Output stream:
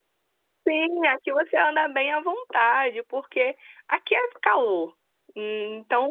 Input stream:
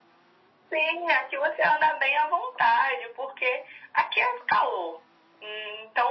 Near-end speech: none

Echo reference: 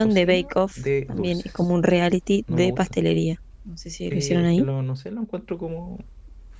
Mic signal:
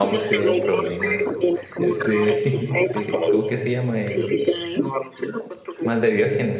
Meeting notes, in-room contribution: present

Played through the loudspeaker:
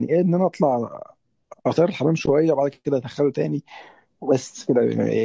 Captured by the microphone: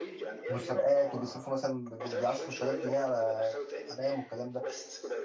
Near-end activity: present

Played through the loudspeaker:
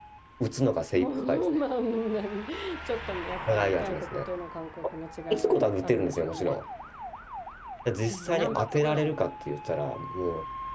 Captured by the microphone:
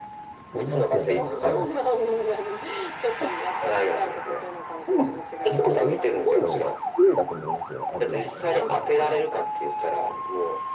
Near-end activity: present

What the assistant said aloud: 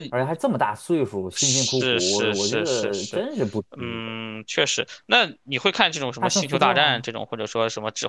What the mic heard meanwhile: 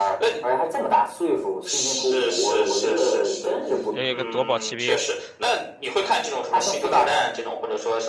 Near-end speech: present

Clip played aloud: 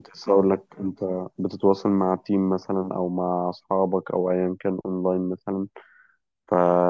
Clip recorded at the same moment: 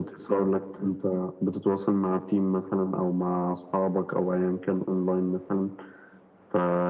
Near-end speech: none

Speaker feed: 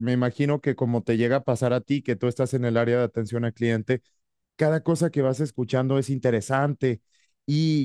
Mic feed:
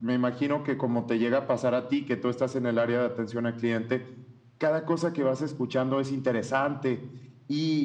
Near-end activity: none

